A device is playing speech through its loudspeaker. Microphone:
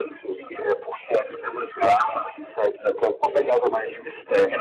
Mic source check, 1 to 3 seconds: echo only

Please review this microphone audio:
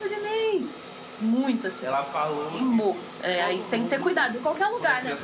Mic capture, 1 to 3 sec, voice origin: both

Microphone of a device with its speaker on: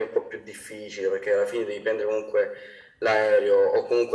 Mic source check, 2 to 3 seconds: echo only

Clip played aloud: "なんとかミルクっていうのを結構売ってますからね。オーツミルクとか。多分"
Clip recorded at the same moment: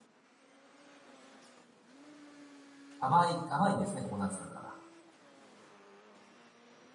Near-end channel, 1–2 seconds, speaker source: neither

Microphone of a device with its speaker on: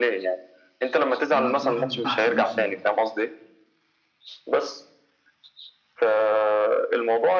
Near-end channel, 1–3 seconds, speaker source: both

